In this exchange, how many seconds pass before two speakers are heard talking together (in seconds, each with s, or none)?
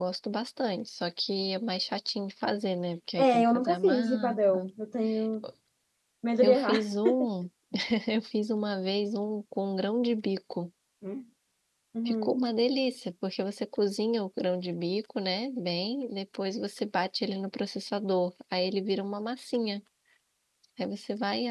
3.2 s